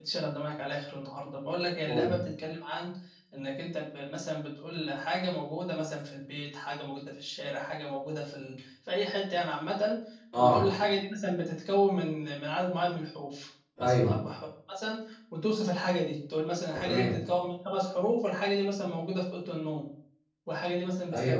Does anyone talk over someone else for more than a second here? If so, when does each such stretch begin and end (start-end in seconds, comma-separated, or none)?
none